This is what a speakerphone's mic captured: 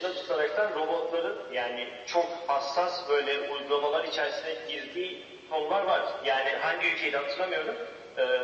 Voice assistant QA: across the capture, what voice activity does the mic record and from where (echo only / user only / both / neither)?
echo only